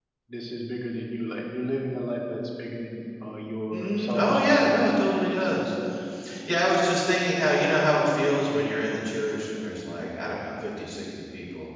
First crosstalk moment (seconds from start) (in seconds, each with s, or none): 3.7 s